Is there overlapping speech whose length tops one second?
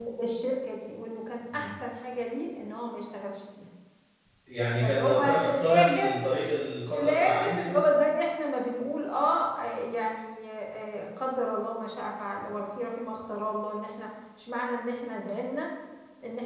Yes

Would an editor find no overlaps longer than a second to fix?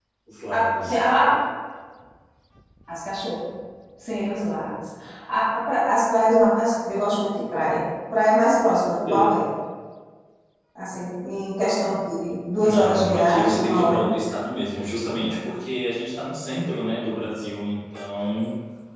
No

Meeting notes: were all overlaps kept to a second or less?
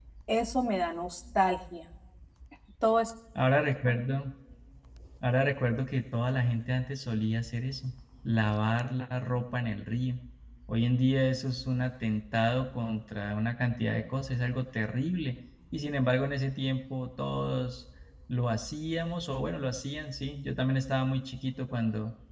Yes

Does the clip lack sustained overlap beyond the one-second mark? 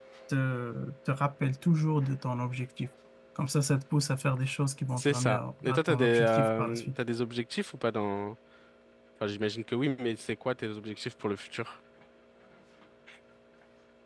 No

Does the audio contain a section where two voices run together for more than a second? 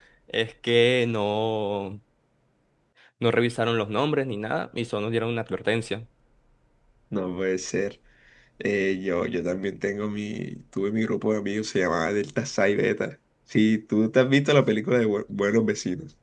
No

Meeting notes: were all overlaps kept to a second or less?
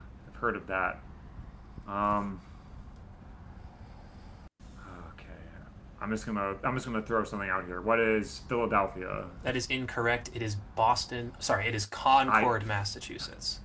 Yes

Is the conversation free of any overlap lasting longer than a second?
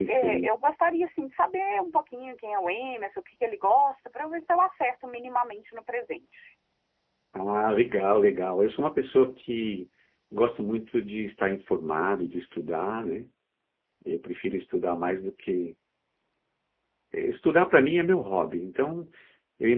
Yes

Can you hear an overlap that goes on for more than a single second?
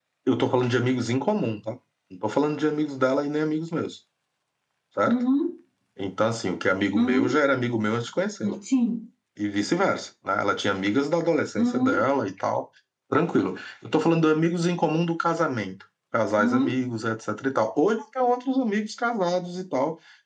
No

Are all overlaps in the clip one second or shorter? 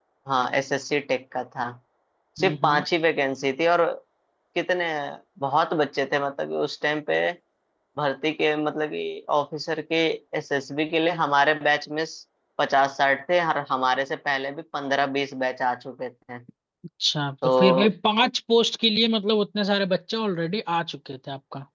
Yes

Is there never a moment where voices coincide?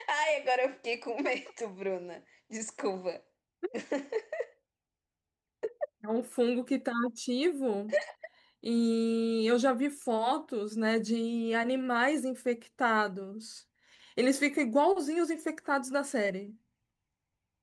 Yes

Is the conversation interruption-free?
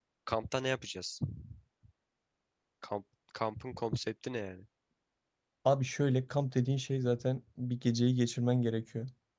Yes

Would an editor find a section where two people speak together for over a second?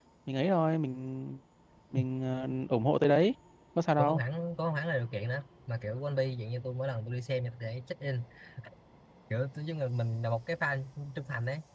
No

